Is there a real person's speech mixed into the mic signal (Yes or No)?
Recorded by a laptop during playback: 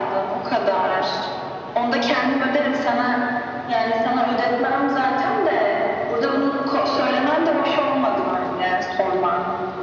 No